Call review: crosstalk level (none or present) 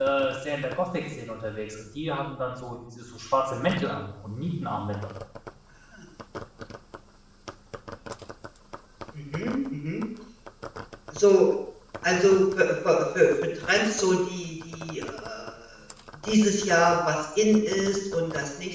none